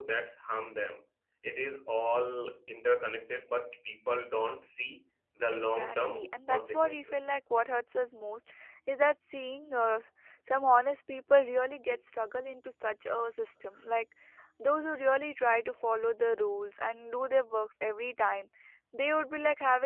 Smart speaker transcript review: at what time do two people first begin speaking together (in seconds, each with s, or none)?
5.5 s